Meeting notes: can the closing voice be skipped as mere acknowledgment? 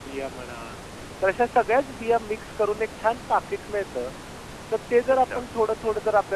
Yes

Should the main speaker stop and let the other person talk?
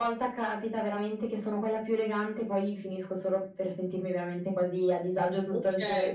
Yes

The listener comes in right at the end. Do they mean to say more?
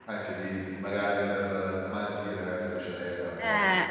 Yes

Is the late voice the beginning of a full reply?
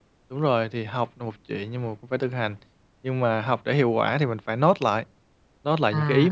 No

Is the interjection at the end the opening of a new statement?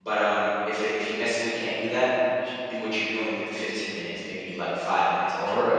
Yes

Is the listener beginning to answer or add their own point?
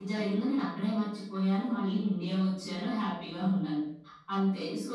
No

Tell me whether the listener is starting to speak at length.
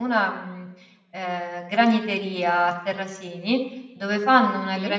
No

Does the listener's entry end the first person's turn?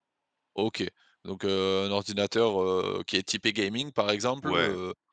No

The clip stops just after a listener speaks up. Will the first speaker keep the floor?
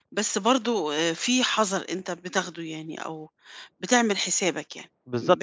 No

